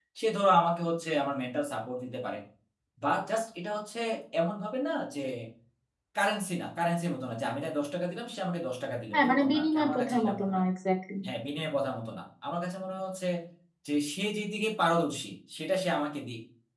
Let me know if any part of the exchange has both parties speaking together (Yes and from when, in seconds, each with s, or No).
Yes, from 9.1 s